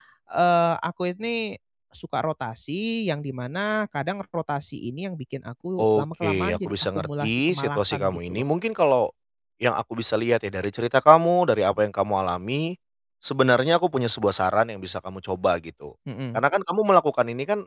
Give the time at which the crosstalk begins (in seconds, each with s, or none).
5.8 s